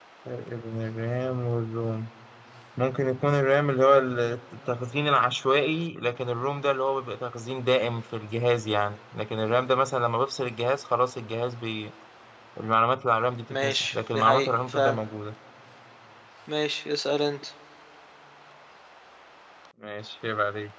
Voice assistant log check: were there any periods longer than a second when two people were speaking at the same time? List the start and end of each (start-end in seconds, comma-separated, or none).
13.5-15.0